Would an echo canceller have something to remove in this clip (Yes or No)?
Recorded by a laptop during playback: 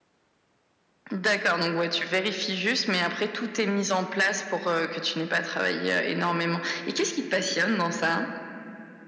Yes